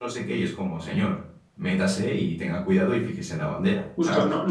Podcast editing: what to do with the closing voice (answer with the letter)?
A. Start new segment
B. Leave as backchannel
A